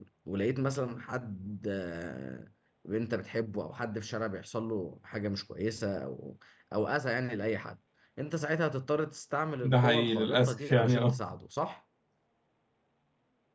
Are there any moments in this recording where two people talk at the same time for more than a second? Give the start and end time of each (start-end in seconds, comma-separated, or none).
9.6-11.2